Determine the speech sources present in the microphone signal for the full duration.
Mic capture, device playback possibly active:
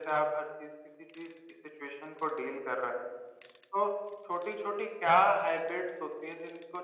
echo only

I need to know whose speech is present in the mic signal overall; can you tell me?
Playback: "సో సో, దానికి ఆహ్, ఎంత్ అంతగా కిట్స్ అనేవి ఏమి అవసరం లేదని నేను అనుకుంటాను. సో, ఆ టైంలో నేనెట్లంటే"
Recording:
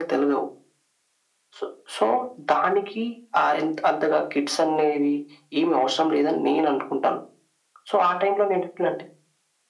echo only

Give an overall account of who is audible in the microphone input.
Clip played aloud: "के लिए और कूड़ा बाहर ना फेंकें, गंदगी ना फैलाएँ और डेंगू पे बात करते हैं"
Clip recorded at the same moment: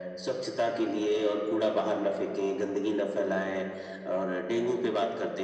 echo only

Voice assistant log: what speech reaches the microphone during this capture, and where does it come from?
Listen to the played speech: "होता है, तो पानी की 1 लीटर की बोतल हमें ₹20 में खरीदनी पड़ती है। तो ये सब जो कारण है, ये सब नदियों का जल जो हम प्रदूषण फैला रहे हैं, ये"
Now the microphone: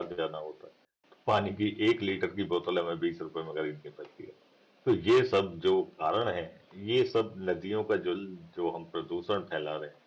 echo only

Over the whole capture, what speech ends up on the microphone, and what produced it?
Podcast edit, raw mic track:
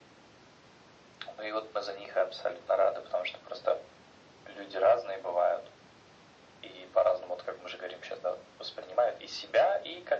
echo only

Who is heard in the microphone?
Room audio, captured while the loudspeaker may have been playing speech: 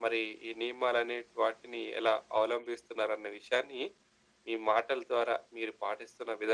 echo only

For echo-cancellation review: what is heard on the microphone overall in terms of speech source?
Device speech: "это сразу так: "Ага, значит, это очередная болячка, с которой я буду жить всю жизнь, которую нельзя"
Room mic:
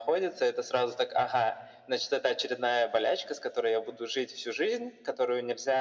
echo only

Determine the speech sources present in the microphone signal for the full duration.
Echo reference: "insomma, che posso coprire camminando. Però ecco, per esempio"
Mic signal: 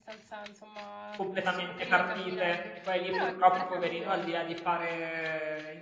both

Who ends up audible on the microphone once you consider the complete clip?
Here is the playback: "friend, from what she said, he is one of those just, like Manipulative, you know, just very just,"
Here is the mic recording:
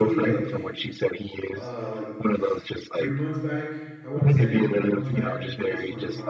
both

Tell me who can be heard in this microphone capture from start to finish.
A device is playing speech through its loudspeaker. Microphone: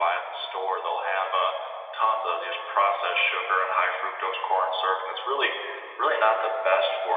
echo only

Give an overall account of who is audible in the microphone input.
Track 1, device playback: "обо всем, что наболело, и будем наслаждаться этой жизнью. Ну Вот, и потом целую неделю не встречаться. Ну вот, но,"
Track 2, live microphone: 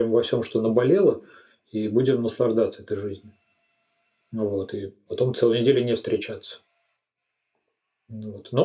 echo only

